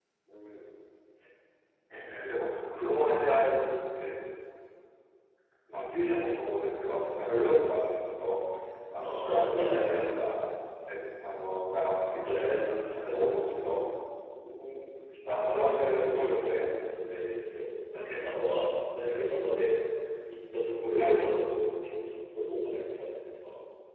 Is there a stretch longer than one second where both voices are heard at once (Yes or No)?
Yes